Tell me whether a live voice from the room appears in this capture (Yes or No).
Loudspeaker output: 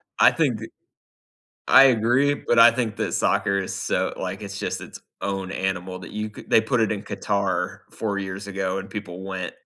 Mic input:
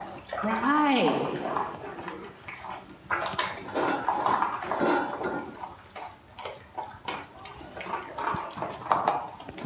Yes